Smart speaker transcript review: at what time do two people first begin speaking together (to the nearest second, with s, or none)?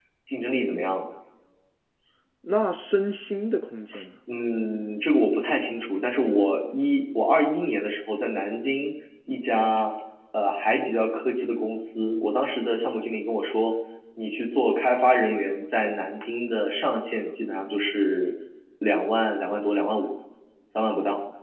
none